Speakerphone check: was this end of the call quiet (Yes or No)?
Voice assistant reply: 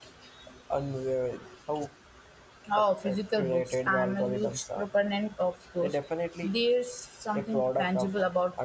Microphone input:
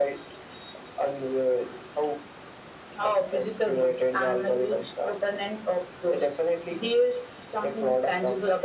Yes